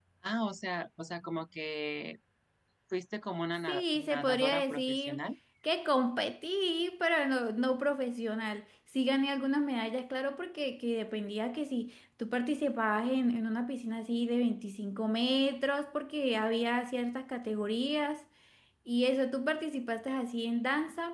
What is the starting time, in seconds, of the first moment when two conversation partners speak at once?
3.7 s

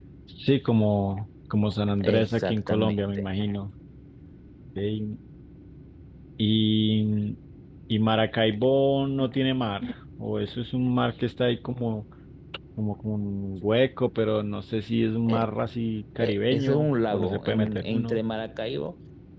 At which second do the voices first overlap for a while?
2.0 s

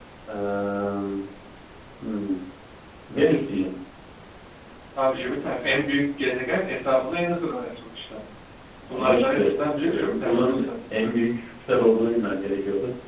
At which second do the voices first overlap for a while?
8.9 s

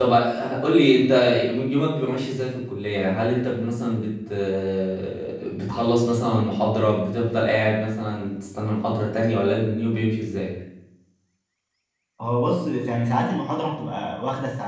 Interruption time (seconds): none

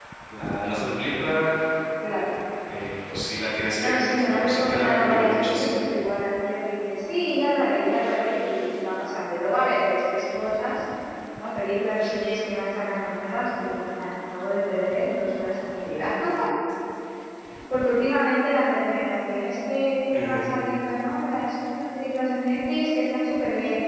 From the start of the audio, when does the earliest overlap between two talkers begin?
3.8 s

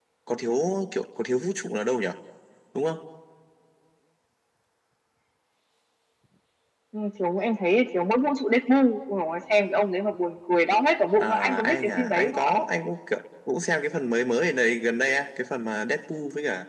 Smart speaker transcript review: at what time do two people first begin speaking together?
11.1 s

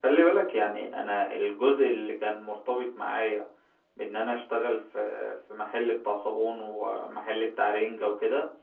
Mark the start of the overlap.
none

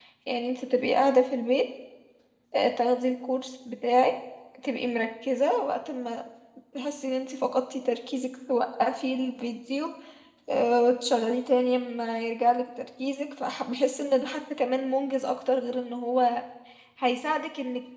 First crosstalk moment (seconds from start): none

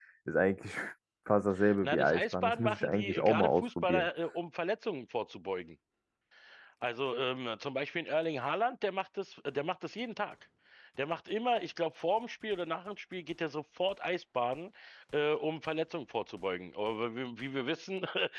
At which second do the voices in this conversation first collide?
1.8 s

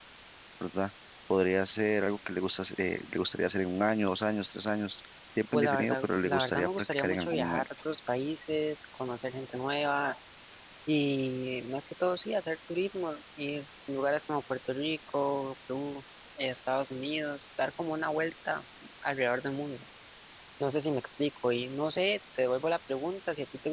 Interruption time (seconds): 5.5 s

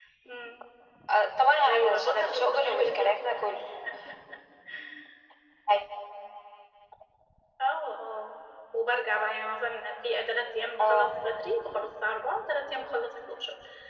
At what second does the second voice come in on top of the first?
1.7 s

